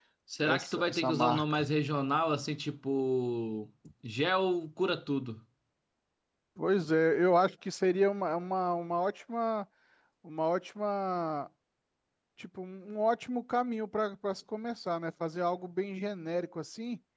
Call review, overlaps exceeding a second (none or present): present